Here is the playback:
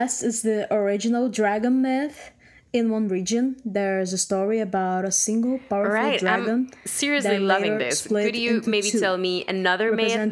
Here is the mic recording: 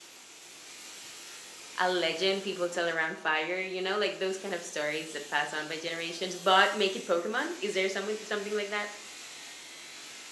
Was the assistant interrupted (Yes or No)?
Yes